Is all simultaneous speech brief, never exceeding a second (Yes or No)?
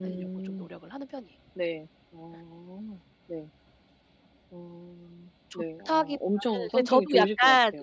No